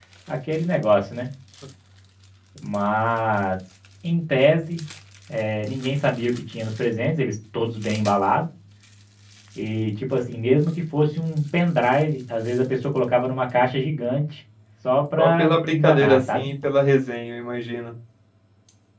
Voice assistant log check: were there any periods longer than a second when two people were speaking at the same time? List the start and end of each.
15.2-16.5

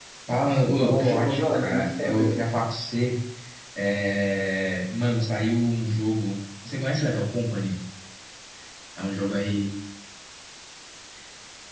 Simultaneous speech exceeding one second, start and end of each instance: 0.8-2.4

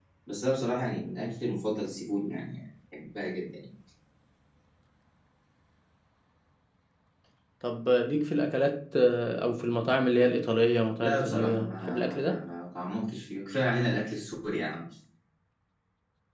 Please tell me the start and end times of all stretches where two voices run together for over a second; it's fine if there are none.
11.0-12.4

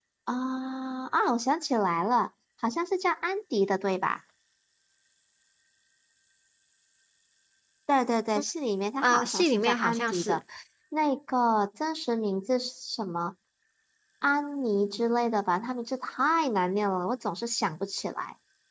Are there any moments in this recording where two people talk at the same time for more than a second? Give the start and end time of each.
9.0-10.4

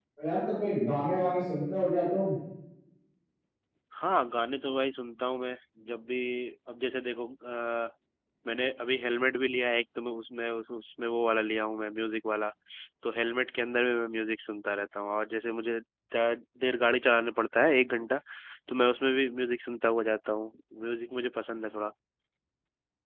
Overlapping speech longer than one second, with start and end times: none

